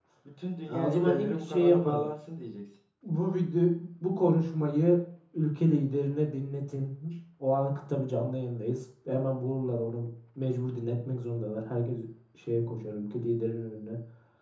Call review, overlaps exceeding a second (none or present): present